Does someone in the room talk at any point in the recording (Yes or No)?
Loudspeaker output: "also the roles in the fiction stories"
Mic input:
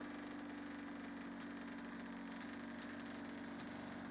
No